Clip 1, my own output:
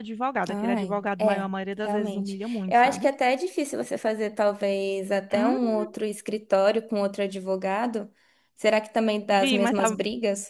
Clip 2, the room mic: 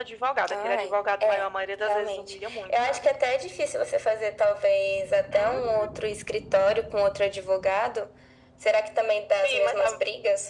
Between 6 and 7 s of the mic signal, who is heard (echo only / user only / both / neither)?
echo only